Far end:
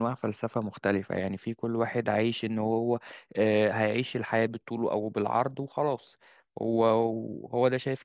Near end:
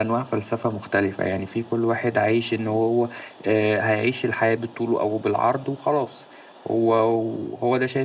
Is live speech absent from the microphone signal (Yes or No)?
Yes